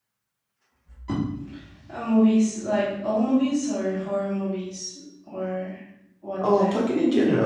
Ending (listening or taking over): taking over